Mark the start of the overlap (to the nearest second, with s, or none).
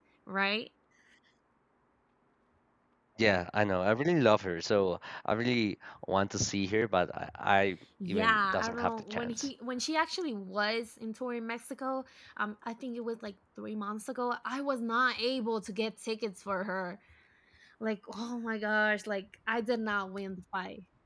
8 s